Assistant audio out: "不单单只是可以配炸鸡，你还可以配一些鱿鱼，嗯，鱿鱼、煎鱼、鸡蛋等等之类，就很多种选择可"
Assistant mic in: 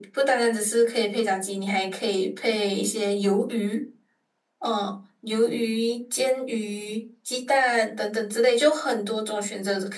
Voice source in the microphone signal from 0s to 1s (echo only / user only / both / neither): echo only